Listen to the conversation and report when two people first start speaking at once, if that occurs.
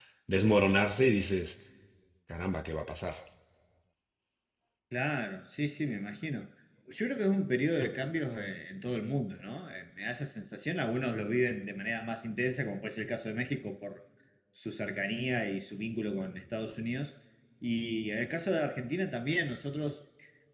none

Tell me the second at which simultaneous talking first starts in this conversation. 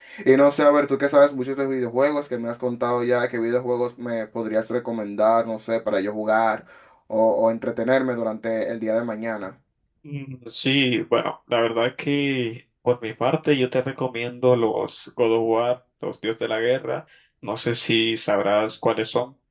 none

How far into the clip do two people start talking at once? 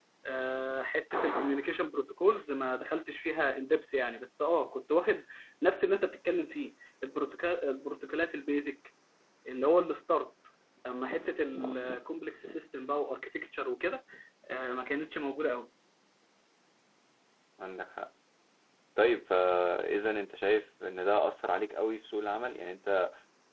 none

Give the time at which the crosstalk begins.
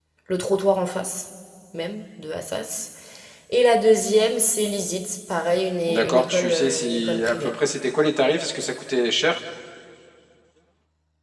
5.9 s

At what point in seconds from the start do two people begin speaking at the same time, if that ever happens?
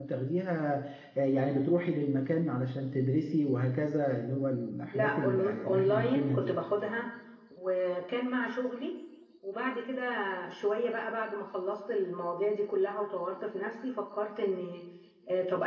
4.9 s

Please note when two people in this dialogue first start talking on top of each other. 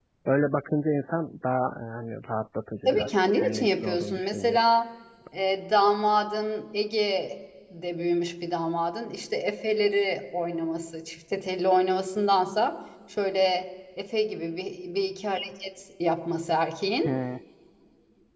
2.9 s

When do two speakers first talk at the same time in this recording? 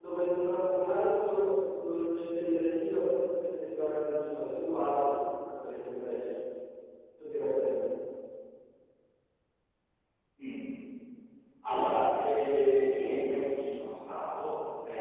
none

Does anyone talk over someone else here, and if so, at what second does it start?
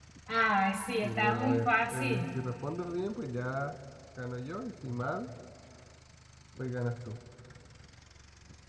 1.0 s

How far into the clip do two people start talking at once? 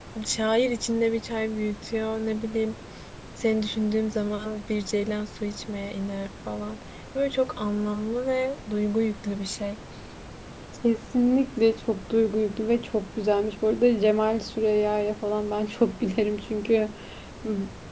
none

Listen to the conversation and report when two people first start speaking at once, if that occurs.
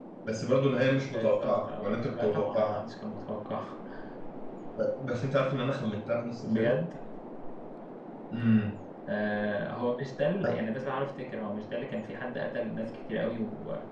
1.1 s

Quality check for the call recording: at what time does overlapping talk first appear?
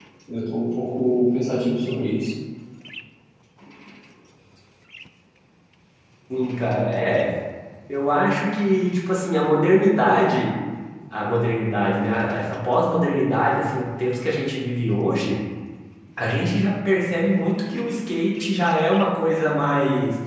none

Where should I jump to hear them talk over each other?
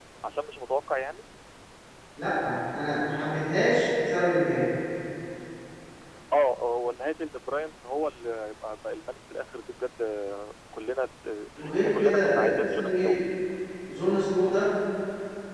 11.6 s

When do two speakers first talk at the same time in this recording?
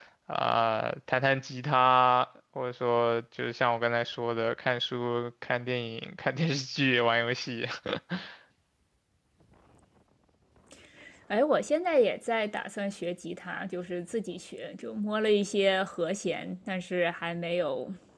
none

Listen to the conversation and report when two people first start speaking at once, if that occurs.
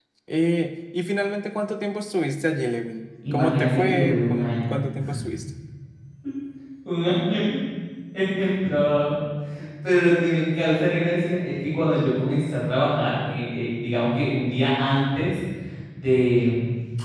3.3 s

